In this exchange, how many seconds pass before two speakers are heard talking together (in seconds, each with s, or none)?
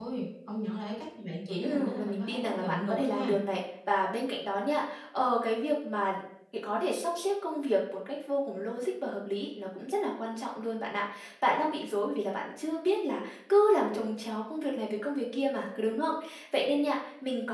1.6 s